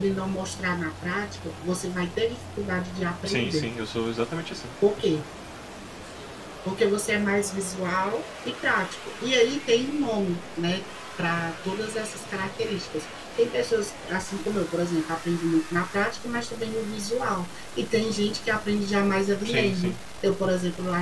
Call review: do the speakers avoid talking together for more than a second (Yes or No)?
Yes